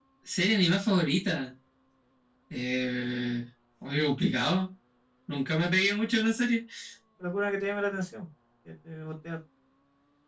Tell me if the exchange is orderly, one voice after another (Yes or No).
Yes